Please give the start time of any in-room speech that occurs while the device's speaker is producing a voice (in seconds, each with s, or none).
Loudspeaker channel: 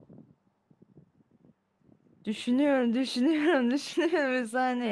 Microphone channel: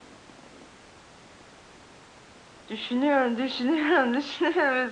none